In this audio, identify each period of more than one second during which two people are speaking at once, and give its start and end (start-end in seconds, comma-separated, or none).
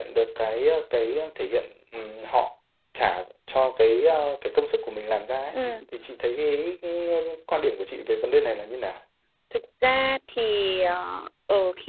none